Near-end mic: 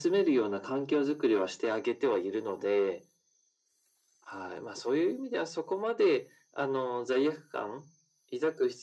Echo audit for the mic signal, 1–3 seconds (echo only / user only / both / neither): echo only